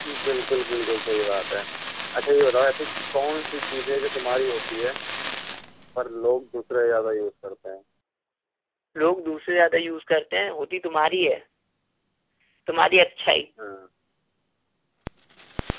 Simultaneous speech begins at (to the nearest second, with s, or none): none